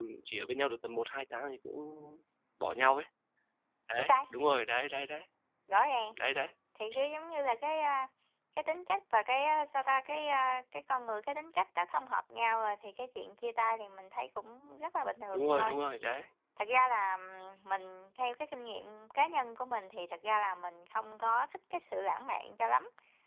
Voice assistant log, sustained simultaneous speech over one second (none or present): none